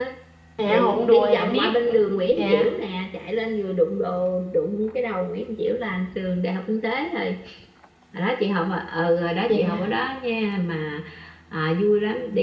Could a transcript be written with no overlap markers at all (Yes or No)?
No